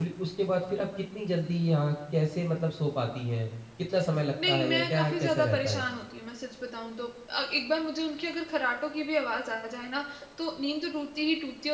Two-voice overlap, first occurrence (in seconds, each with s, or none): 4.5 s